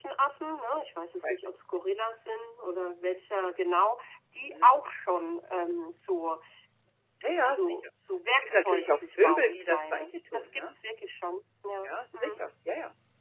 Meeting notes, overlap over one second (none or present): present